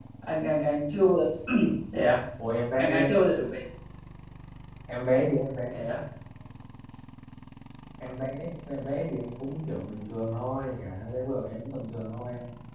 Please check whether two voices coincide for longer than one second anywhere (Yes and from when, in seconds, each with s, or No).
No